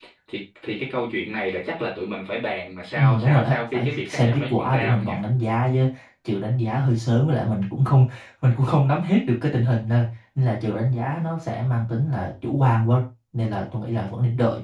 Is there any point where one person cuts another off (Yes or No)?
Yes